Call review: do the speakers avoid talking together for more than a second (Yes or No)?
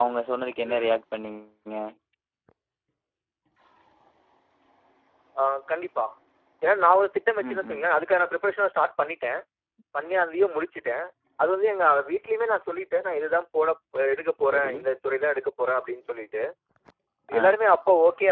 Yes